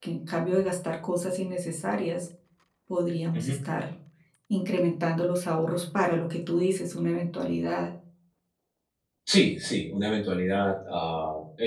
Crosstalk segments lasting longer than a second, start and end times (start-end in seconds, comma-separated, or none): none